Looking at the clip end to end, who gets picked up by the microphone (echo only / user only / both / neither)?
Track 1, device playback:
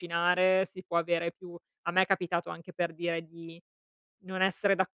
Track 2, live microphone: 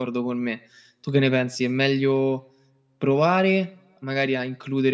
user only